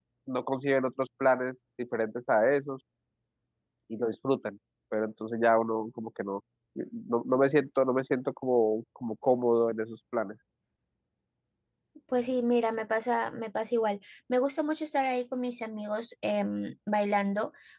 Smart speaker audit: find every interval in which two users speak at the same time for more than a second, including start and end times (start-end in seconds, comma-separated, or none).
none